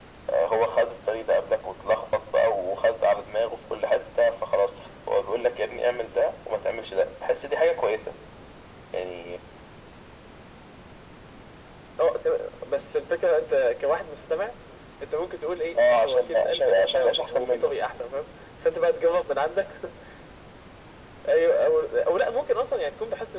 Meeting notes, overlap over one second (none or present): present